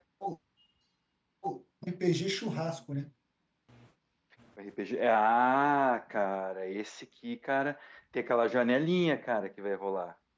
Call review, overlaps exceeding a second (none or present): none